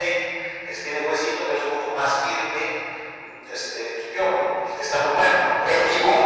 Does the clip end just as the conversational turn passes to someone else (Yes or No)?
Yes